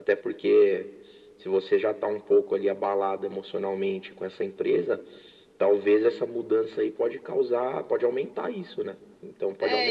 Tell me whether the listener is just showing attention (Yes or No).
No